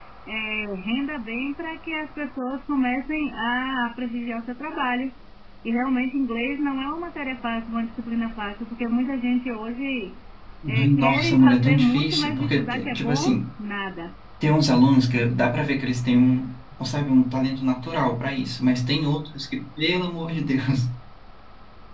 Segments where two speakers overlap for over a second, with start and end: 10.8-13.4

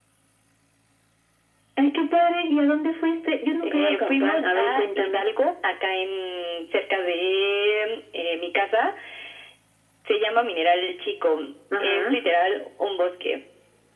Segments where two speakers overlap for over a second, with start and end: 3.6-5.2

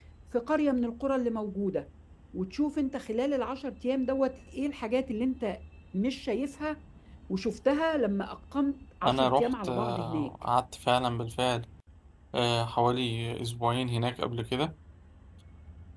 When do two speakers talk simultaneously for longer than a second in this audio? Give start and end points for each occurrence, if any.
9.1-10.3

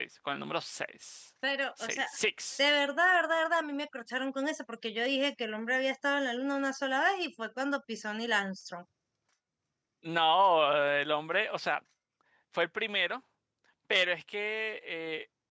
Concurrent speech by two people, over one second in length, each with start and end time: none

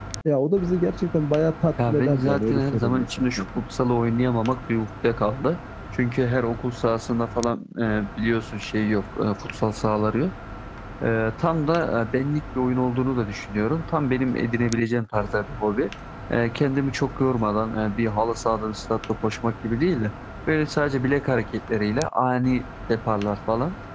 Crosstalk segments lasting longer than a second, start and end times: 1.9-3.4

